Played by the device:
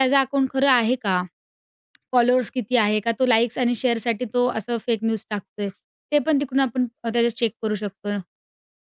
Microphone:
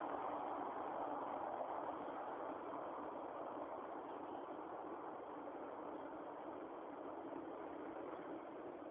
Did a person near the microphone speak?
No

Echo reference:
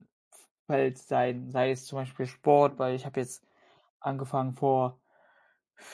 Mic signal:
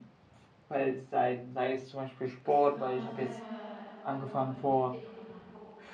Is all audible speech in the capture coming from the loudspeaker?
No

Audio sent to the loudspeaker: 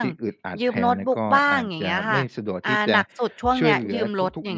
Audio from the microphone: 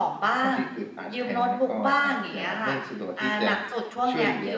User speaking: No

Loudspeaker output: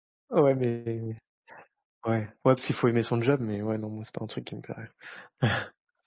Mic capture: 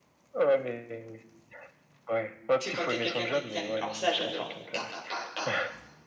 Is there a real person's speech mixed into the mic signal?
Yes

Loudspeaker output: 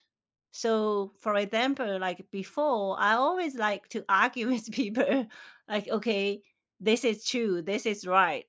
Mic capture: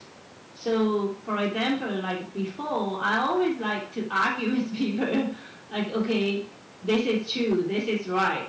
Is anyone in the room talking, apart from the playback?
No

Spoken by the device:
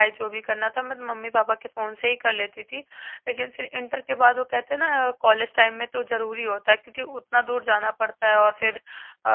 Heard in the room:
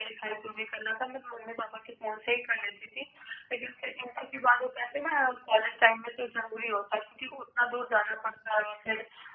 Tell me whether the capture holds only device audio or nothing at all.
Yes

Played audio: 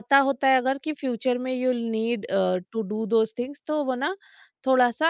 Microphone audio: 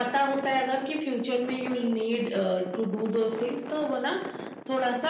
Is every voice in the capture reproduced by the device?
Yes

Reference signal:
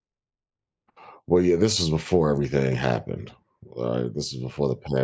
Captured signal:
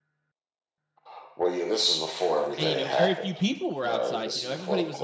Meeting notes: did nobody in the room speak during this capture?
No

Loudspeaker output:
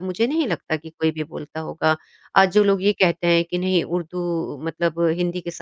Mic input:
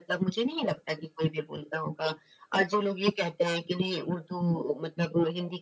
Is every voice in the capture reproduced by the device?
Yes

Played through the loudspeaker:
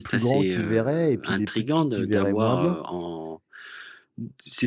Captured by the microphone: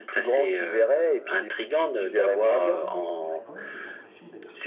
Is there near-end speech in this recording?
Yes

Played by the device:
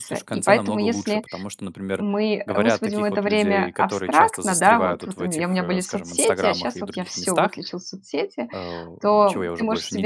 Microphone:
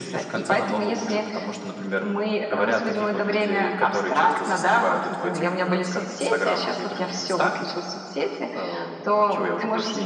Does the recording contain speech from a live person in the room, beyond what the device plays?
No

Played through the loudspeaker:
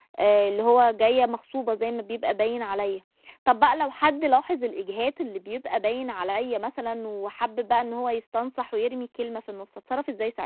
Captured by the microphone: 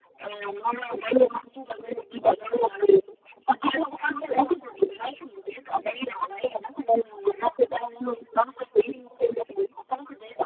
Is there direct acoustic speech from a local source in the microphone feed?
No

